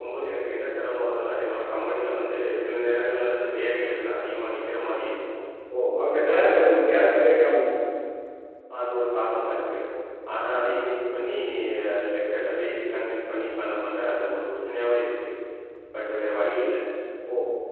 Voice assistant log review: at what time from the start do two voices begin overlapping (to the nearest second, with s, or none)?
6 s